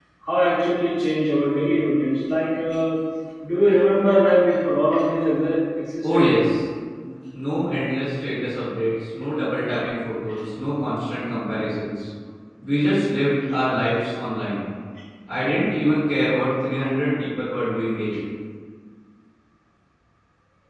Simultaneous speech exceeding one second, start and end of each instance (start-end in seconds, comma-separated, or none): none